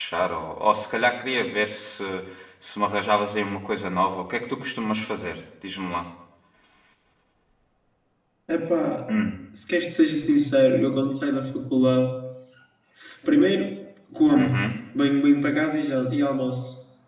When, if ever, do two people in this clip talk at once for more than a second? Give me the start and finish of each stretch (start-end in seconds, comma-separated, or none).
none